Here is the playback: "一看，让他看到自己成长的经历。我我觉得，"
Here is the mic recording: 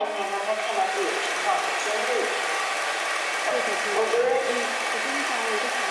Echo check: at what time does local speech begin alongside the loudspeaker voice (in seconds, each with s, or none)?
3.5 s